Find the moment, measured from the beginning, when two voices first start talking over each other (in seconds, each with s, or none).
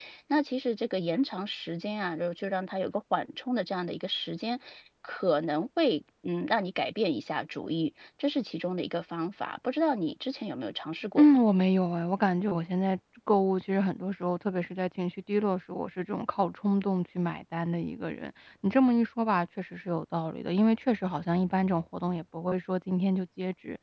none